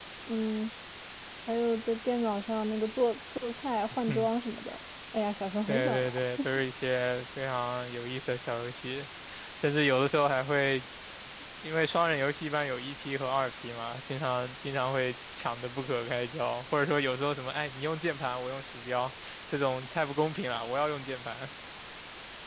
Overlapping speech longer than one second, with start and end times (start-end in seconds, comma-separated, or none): none